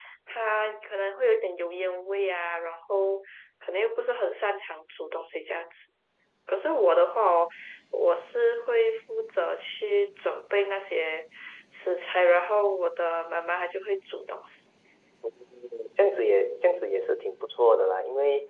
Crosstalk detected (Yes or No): No